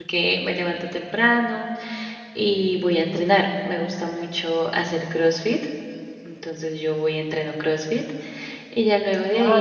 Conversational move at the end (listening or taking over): taking over